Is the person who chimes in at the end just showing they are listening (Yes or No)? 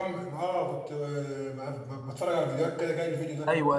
No